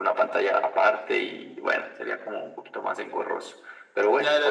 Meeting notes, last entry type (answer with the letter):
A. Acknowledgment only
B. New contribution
B